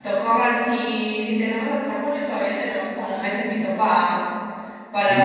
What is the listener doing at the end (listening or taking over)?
taking over